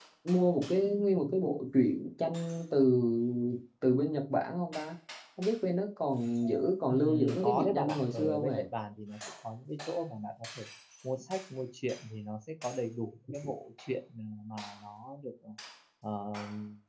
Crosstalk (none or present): present